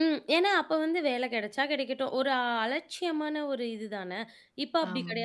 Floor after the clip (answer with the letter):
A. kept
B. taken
A